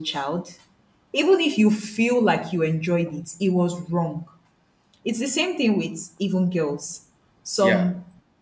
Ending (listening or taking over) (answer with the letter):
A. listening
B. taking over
A